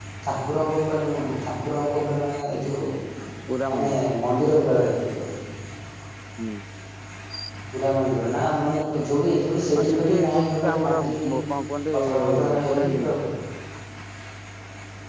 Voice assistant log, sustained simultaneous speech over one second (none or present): present